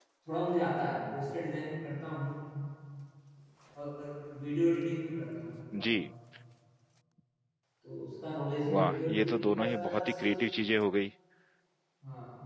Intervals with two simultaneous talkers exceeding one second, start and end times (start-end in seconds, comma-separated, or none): 8.7-10.3